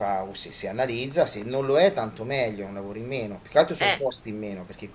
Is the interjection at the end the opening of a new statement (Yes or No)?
No